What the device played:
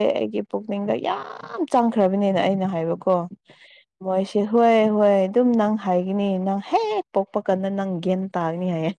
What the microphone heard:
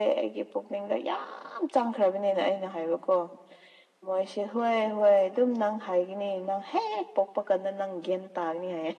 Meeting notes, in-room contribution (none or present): none